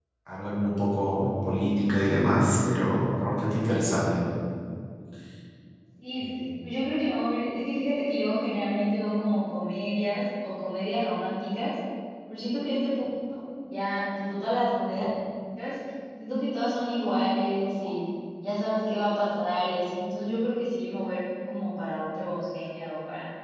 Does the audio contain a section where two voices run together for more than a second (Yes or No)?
No